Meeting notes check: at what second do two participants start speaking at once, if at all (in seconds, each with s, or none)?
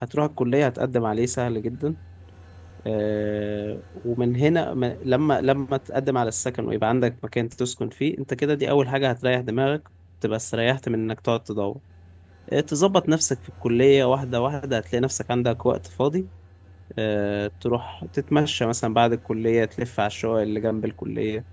none